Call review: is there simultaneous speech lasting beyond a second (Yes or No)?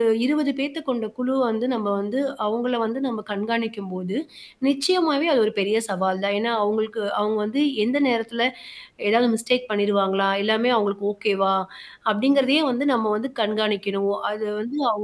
No